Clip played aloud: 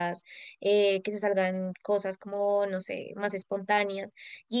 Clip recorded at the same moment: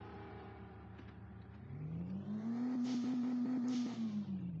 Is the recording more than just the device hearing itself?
No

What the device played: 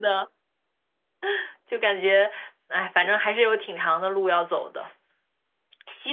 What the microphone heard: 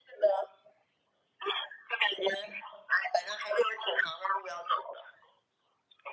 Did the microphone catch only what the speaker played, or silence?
Yes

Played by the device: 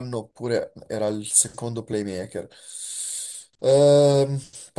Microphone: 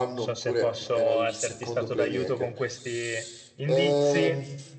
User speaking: Yes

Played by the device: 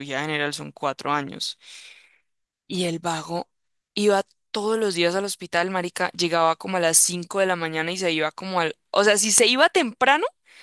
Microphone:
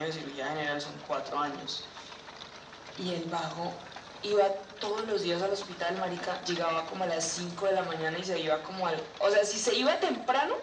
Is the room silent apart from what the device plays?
Yes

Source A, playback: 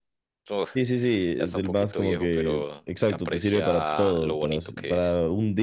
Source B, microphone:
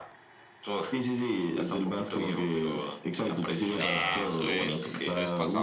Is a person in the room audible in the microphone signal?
Yes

